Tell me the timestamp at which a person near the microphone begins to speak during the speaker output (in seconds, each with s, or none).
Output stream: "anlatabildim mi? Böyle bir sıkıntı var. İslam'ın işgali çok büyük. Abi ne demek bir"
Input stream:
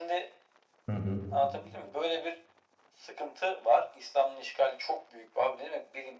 0.9 s